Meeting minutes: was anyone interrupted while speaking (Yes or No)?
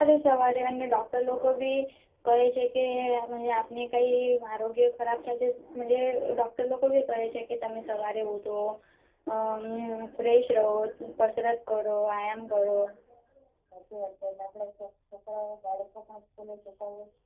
No